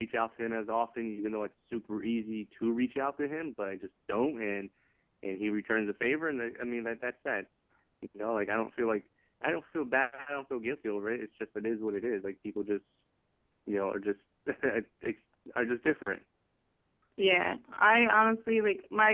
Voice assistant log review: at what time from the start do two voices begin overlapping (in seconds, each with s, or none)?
none